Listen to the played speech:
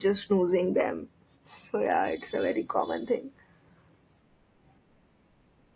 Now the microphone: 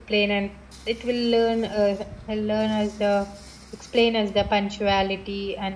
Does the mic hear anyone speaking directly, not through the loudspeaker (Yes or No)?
Yes